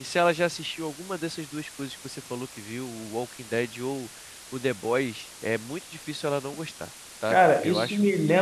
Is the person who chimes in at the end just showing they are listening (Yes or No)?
No